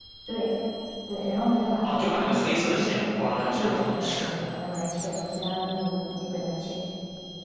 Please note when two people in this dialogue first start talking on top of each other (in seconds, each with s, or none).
1.8 s